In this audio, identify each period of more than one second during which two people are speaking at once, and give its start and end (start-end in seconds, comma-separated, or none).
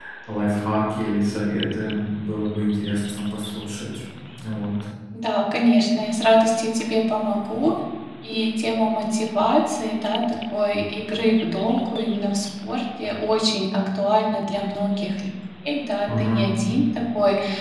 none